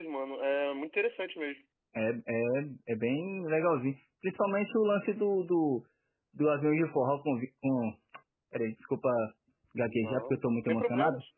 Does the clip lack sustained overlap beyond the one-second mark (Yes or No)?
No